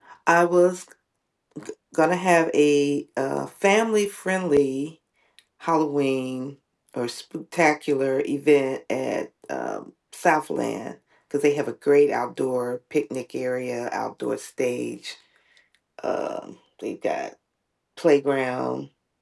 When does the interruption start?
none

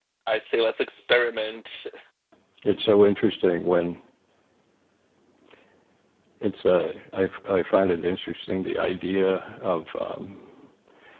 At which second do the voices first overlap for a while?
none

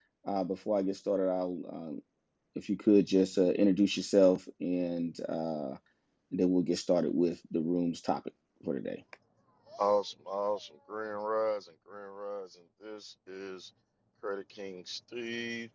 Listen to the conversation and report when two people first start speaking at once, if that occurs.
none

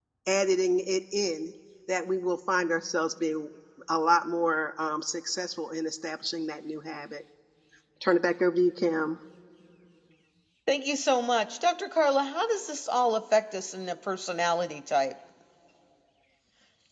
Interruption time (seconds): none

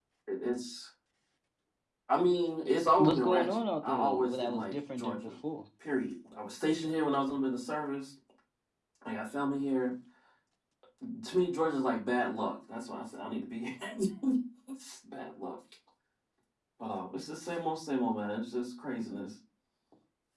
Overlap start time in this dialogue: 3.0 s

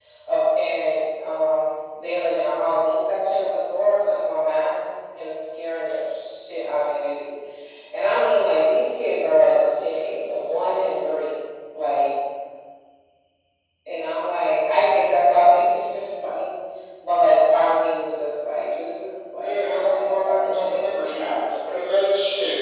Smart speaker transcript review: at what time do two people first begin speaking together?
19.4 s

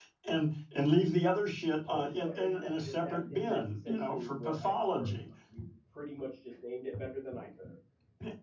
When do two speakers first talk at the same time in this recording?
1.6 s

